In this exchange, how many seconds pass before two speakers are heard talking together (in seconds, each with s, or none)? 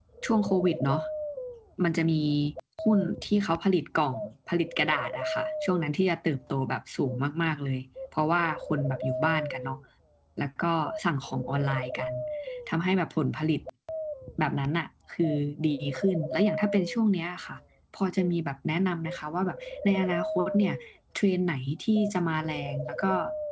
none